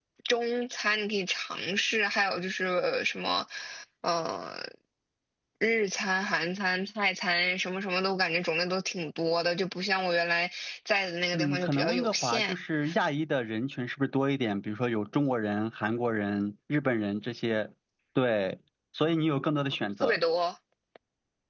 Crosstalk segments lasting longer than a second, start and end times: 11.3-12.5

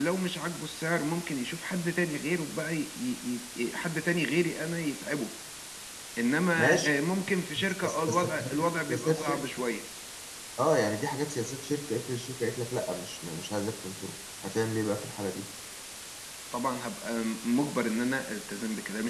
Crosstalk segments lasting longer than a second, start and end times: 7.6-9.4

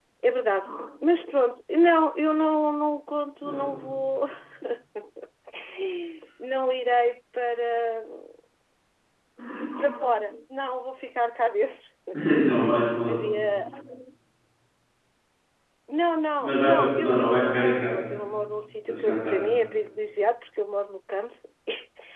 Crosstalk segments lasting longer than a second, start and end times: 16.4-17.9

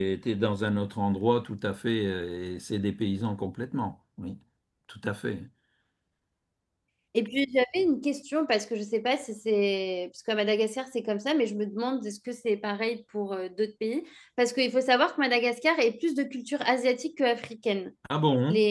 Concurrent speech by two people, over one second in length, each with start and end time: none

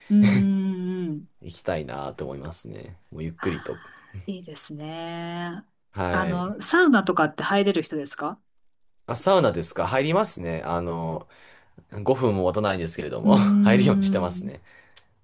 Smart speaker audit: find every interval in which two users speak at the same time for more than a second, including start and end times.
13.2-14.5

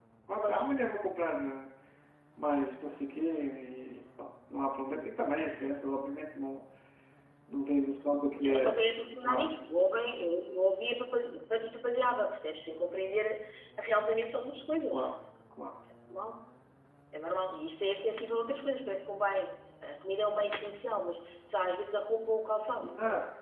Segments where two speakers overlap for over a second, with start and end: none

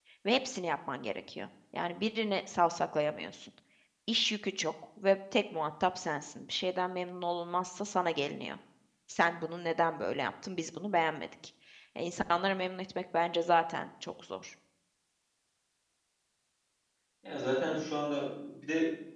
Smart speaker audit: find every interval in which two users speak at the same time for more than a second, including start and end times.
none

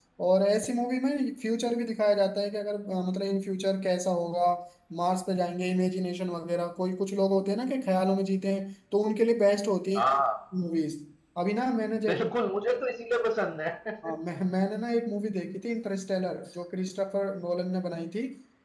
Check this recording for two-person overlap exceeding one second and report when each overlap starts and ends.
none

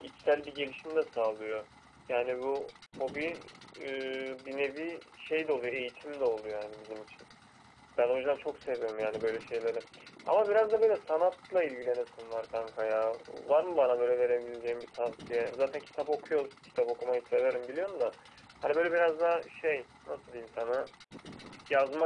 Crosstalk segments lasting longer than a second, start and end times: none

